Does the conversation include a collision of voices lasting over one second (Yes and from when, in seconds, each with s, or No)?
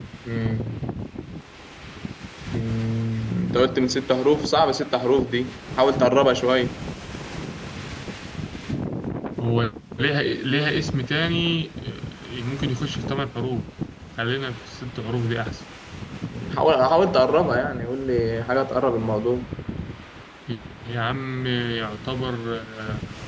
No